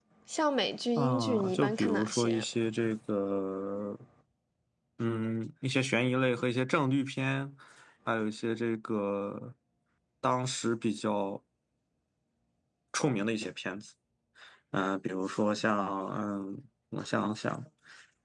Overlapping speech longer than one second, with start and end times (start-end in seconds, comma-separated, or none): 1.0-2.4